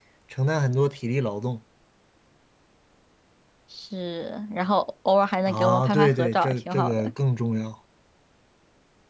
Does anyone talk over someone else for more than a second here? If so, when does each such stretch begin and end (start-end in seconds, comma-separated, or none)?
5.5-7.1